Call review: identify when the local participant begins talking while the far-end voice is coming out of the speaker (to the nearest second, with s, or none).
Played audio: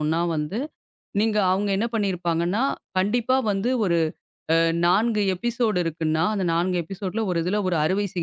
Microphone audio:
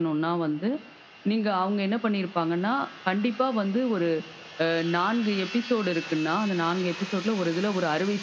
none